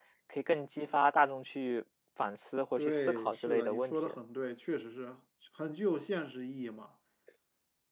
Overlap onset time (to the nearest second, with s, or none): 3 s